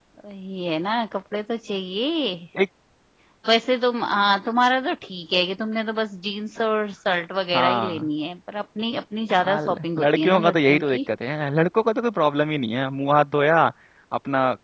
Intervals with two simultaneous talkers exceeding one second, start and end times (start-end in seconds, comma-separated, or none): 9.4-11.0